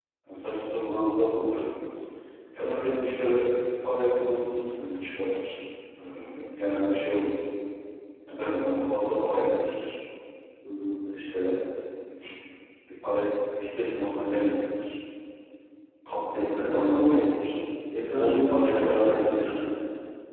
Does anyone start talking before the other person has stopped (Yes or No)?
Yes